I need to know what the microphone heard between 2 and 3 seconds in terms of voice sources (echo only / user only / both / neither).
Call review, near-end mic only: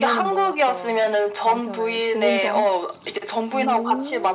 both